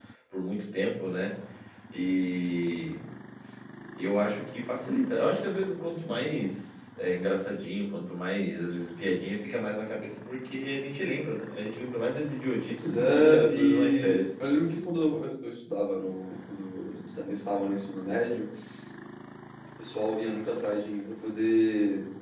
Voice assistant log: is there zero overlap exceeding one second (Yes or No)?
No